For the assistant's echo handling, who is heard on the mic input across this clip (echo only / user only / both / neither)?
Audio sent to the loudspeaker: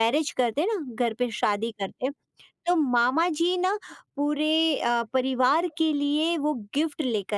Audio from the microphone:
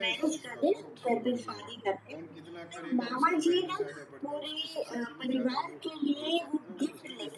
both